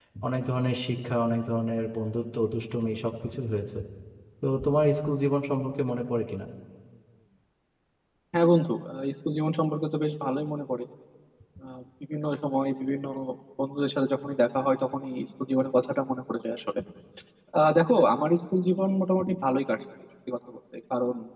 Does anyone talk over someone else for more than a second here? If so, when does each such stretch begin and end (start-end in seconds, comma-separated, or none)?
none